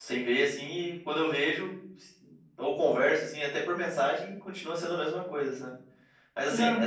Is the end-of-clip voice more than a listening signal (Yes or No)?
No